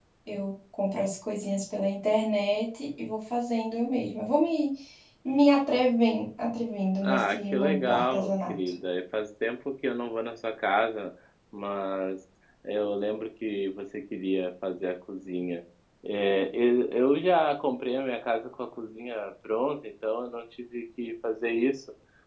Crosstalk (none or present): present